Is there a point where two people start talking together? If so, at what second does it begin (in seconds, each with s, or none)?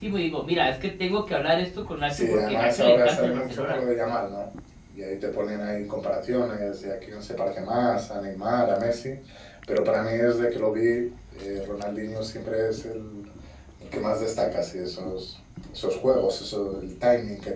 2.1 s